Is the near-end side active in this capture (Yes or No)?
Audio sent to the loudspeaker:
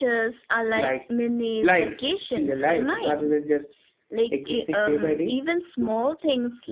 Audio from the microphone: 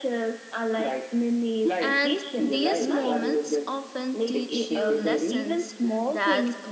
Yes